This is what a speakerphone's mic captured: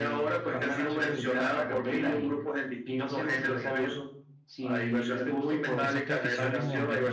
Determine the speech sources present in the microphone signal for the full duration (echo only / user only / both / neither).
both